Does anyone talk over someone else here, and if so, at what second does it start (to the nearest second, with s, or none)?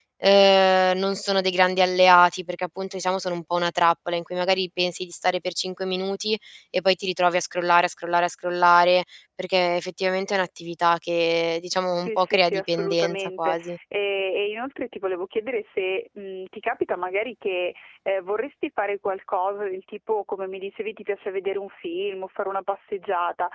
12 s